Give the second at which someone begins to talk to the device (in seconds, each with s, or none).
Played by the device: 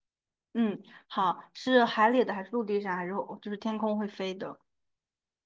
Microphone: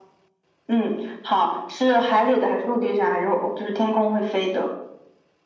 none